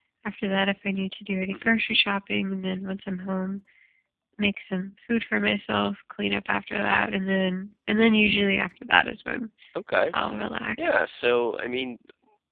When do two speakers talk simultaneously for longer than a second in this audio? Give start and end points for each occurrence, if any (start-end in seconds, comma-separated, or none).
none